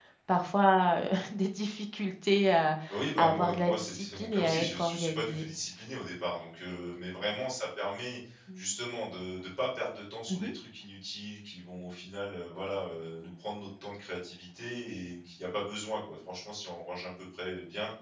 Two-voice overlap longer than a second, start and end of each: 3.2-5.5

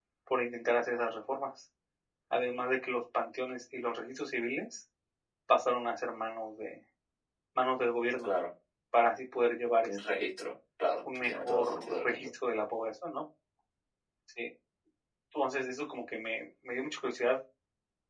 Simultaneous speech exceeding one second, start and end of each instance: 11.0-12.3

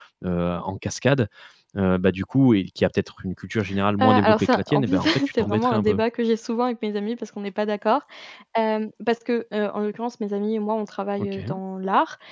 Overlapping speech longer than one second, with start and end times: 4.0-6.0

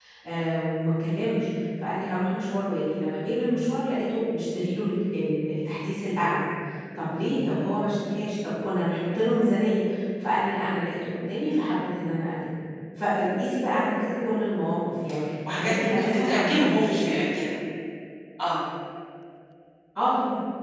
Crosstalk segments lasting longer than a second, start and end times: 15.5-17.1

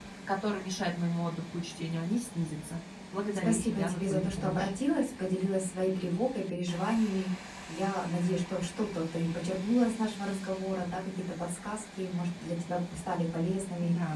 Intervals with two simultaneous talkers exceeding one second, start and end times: 3.4-4.7

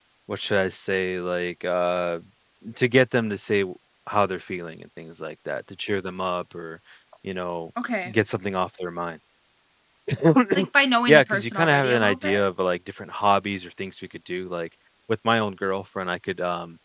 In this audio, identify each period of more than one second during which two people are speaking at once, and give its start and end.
11.1-12.4

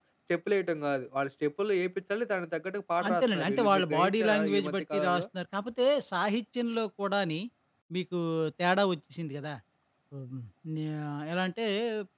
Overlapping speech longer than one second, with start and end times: 3.1-5.2

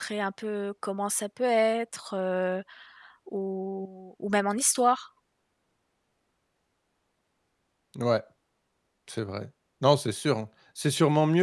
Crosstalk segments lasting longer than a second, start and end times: none

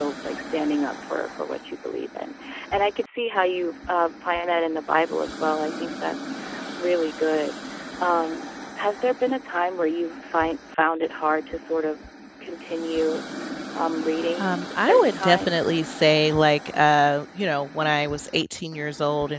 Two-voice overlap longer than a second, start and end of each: 14.4-15.7

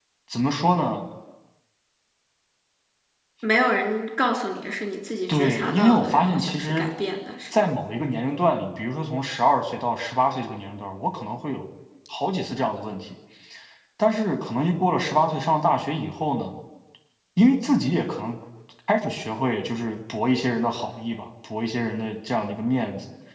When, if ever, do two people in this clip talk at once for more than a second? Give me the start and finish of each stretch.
5.3-6.8

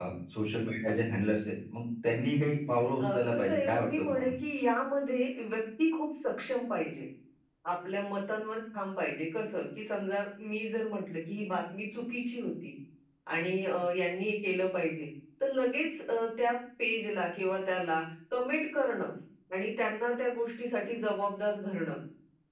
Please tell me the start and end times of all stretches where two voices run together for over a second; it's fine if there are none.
3.0-4.3

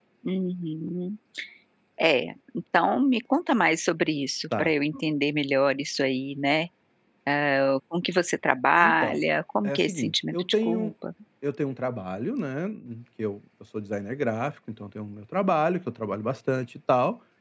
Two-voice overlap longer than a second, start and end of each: 9.6-10.9

